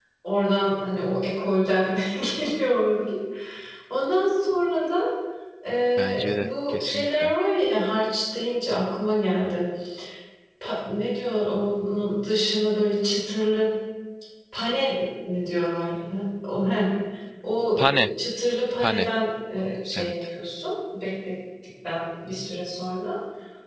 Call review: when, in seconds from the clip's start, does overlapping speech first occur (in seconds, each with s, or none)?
6.0 s